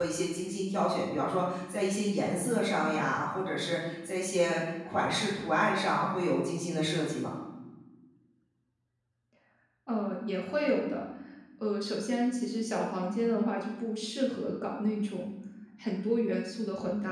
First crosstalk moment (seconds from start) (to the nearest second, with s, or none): none